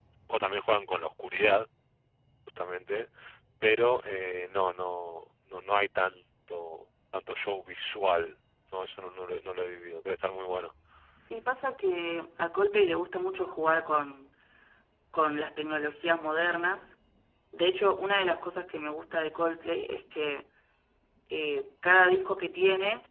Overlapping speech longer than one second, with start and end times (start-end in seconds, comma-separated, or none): none